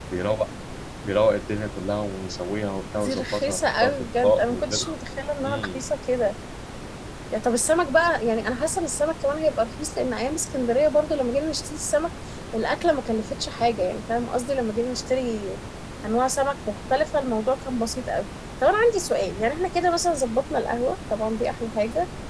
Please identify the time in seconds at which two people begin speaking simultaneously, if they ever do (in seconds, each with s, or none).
2.9 s